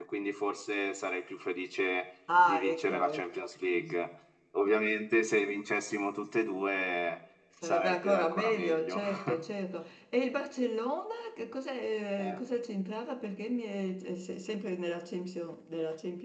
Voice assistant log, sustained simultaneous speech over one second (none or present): present